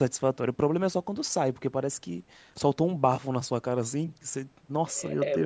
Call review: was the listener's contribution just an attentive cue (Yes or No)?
No